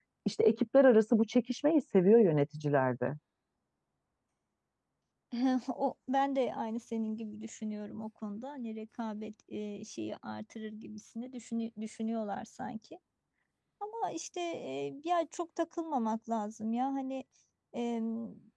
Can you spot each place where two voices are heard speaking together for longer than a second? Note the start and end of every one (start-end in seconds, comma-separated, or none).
none